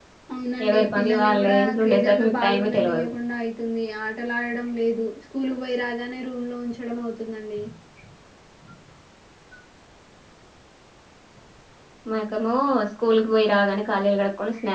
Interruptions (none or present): present